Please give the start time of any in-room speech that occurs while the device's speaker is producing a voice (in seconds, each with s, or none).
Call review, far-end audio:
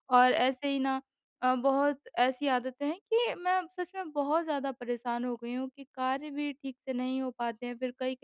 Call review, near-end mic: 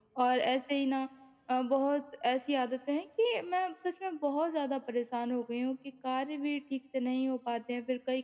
none